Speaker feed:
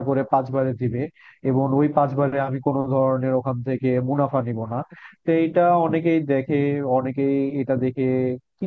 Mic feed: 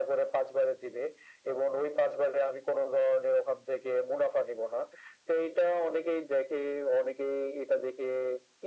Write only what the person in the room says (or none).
none